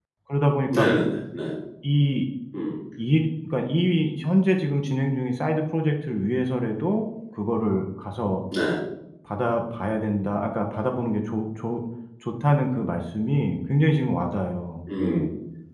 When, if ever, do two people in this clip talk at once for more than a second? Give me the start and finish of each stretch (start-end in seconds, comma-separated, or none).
none